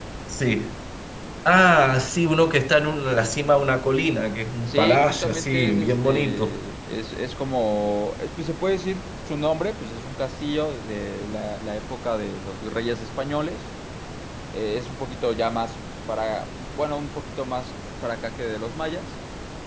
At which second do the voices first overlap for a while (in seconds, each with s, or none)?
4.7 s